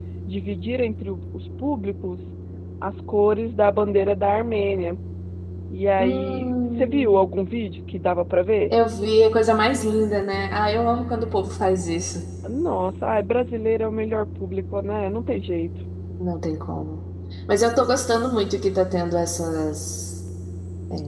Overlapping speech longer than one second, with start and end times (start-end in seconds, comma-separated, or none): 6.0-7.2